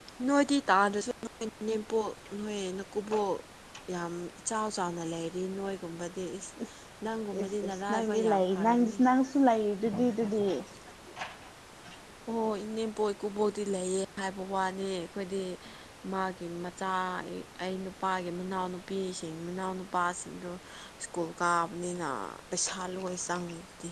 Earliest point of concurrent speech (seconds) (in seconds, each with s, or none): 7.4 s